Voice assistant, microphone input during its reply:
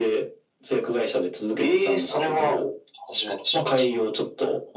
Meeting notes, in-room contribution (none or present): none